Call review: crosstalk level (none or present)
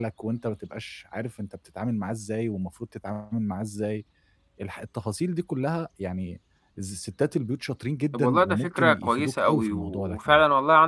present